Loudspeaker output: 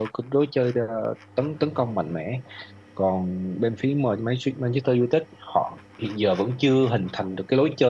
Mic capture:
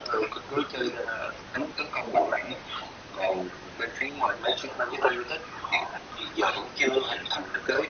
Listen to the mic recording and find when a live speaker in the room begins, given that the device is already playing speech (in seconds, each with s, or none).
none